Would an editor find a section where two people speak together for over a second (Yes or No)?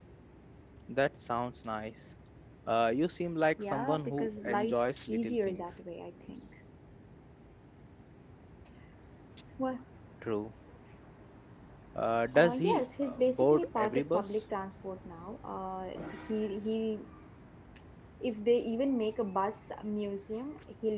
Yes